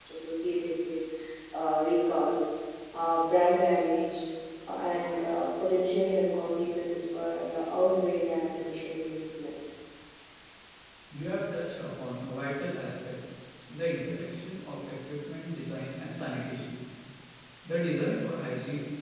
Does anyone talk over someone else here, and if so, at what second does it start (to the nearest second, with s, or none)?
none